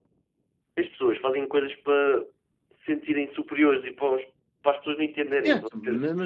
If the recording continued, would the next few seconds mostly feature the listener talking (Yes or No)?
Yes